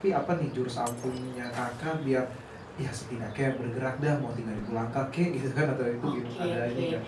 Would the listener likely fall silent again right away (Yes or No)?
No